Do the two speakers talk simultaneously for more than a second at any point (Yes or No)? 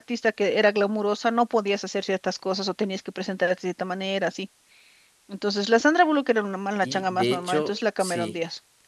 Yes